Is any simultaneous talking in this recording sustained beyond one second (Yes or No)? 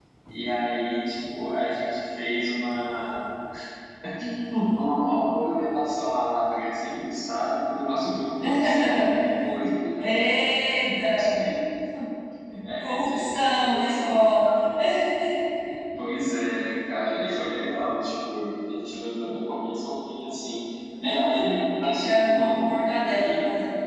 Yes